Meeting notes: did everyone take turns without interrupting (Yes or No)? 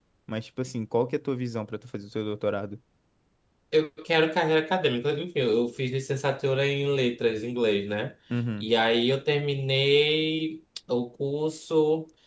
Yes